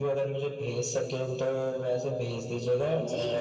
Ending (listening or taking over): taking over